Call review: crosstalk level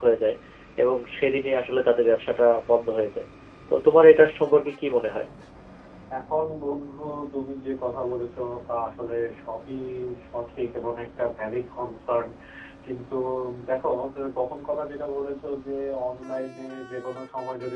none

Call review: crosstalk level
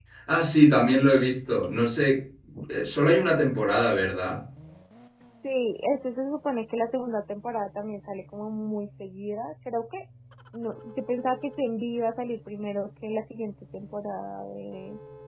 none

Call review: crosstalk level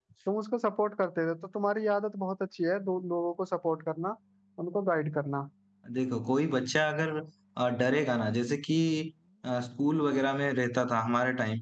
none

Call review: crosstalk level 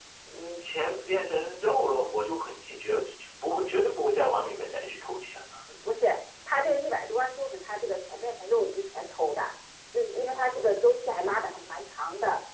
none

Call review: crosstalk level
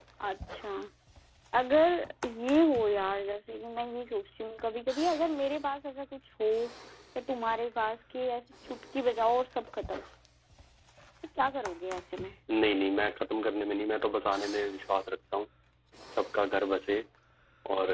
none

